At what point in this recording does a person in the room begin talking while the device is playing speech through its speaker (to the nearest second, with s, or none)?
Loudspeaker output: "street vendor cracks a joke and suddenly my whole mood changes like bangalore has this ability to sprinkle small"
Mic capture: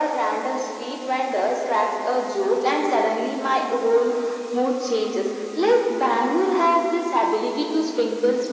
none